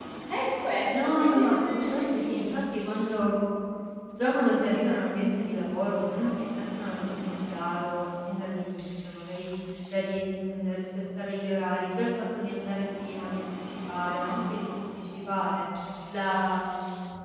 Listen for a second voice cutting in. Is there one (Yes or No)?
Yes